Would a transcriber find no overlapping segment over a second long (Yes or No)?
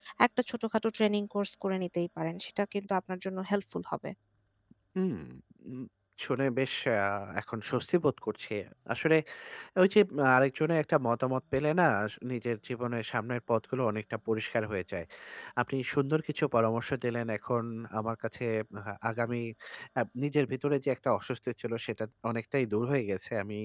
Yes